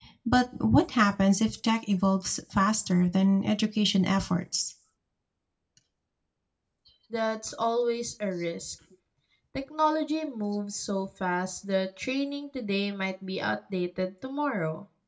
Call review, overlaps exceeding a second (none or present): none